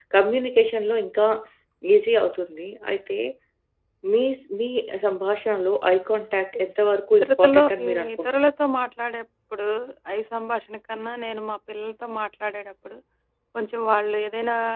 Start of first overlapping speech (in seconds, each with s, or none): 7.1 s